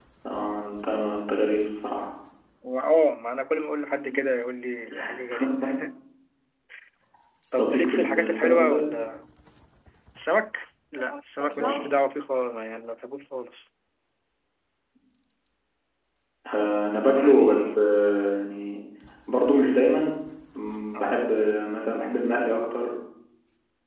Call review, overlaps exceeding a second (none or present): present